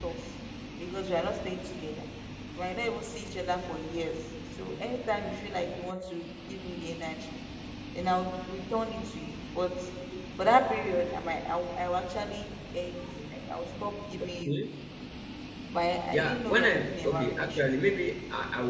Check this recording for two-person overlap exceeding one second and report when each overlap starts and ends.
16.1-17.7

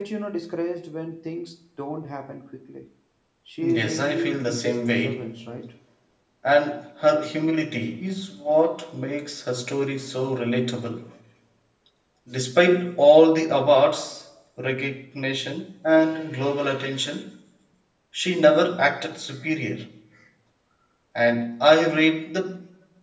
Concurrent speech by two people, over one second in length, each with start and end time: 3.6-5.3

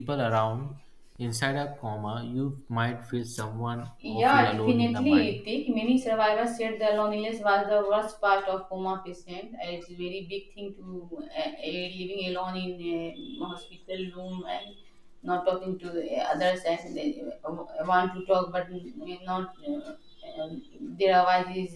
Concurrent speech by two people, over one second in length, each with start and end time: 4.1-5.4

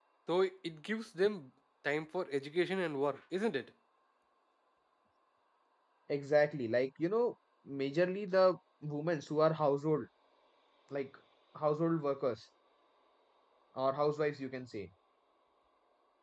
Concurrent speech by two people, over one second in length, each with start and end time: none

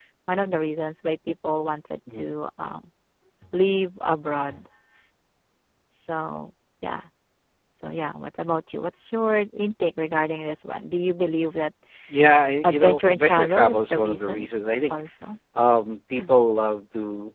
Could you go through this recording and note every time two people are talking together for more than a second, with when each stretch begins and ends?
12.6-14.5

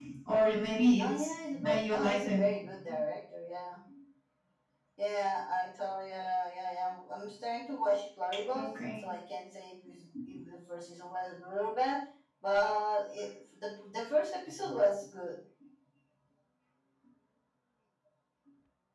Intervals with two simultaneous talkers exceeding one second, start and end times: 1.0-2.4

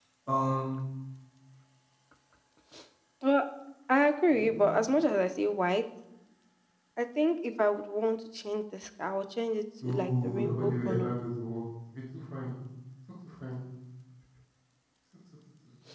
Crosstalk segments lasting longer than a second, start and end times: 9.8-11.1

